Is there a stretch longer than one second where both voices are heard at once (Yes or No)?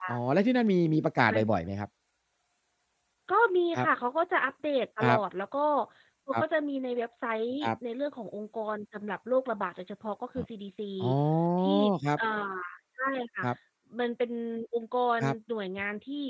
No